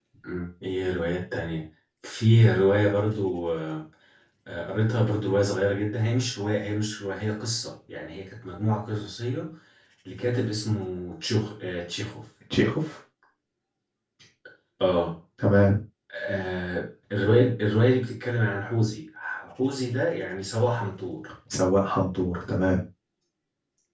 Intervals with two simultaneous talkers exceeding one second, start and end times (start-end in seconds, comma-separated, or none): none